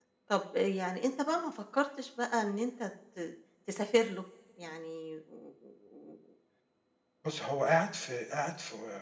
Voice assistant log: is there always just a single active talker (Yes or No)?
Yes